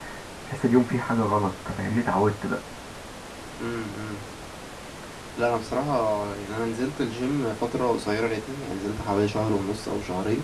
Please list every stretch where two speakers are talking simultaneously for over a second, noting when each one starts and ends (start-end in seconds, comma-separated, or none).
none